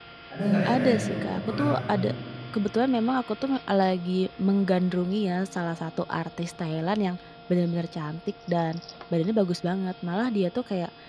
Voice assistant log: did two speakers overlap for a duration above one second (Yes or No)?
Yes